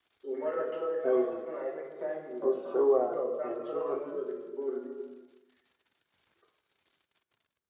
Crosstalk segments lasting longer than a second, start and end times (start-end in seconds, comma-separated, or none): 2.4-4.2